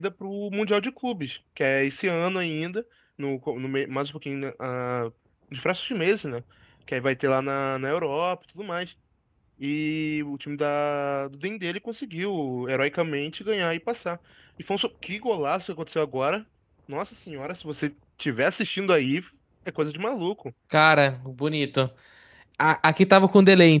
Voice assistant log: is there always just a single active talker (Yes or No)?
Yes